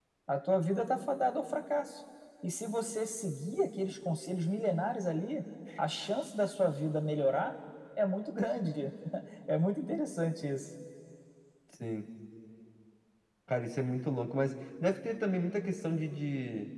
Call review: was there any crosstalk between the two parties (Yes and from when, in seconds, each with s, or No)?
No